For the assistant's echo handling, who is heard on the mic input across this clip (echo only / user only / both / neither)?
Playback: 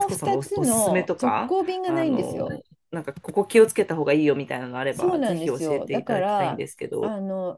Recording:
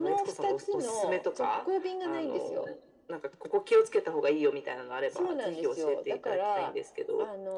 echo only